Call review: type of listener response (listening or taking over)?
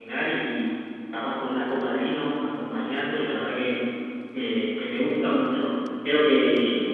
listening